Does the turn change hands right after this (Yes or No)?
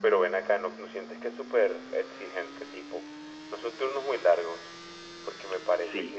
Yes